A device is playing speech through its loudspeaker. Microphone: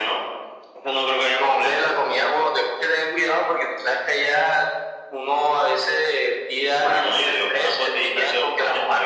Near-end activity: none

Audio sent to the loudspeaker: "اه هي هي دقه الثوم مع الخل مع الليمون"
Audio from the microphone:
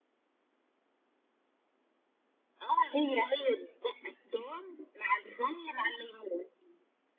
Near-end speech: none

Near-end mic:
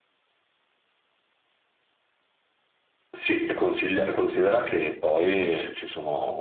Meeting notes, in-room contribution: none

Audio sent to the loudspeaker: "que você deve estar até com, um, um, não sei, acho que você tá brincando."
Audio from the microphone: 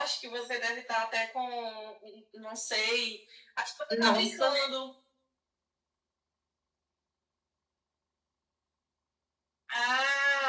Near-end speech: present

